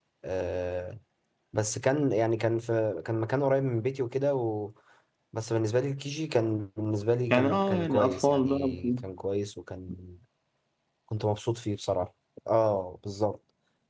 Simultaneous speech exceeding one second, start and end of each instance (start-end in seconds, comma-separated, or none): 7.3-9.0